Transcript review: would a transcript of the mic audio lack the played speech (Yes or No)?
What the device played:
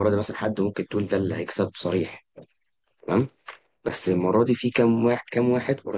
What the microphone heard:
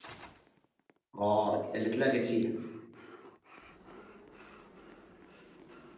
Yes